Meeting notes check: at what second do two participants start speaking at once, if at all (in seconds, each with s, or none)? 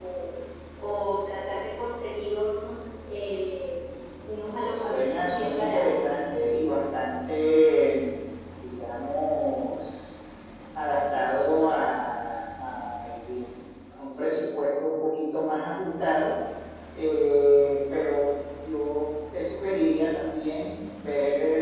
4.6 s